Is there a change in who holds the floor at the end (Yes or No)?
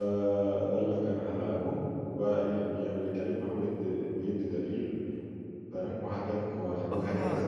Yes